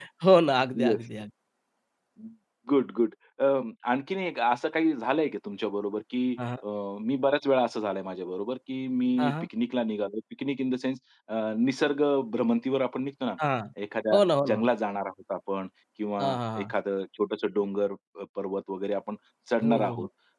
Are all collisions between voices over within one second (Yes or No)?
Yes